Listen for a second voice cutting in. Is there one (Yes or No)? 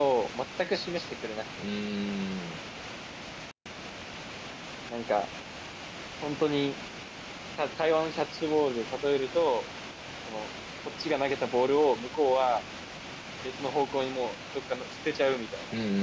No